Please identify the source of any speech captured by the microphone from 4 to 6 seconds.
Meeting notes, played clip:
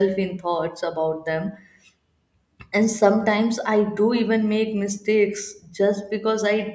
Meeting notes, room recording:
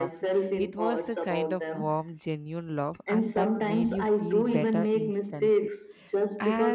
both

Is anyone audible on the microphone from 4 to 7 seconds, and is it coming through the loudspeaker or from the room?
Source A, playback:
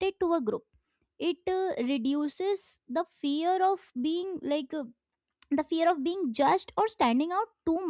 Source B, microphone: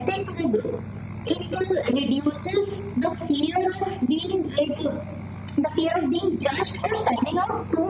echo only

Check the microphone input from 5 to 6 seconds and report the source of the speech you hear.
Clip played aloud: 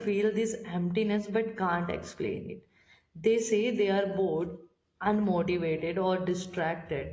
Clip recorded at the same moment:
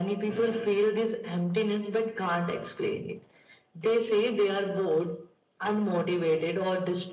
echo only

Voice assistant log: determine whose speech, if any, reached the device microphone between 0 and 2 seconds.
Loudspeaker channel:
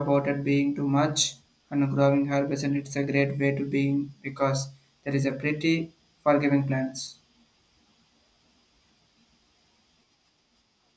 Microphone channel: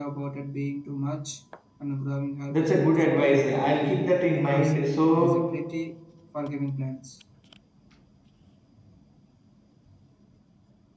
echo only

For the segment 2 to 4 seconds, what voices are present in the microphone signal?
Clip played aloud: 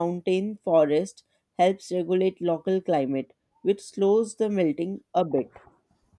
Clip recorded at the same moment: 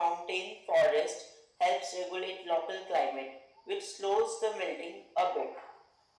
echo only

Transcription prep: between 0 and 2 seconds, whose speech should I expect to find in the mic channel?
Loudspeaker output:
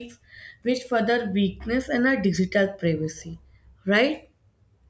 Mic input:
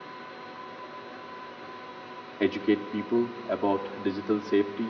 neither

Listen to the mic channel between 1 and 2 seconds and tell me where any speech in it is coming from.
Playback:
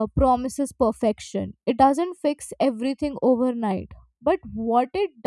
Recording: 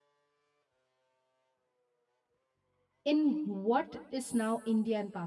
neither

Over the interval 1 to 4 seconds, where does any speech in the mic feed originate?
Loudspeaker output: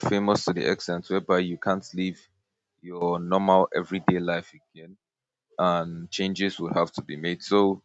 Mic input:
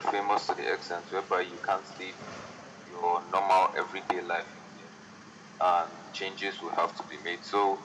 echo only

